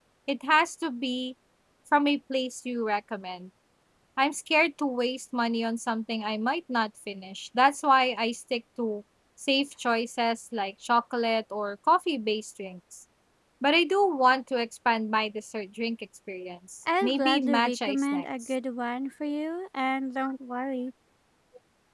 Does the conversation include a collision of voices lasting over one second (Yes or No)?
Yes